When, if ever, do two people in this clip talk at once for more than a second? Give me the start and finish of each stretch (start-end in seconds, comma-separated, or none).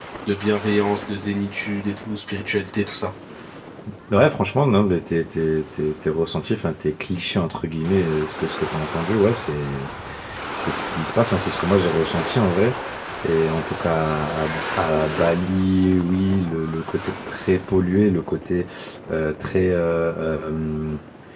none